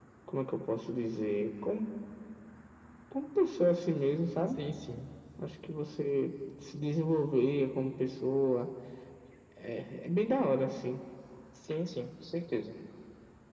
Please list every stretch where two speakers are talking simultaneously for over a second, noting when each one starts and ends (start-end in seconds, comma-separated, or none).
none